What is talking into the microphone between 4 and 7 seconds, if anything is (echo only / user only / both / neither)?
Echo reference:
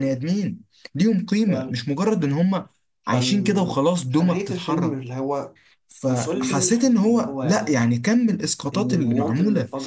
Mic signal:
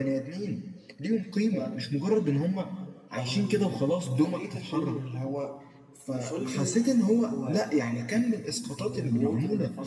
echo only